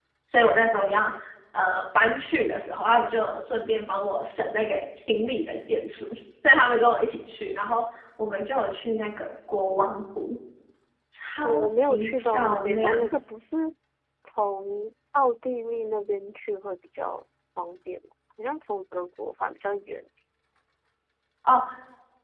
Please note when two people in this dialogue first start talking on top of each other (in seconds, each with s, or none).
11.4 s